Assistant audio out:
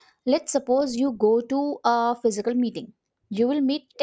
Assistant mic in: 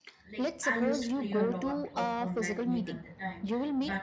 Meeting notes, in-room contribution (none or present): present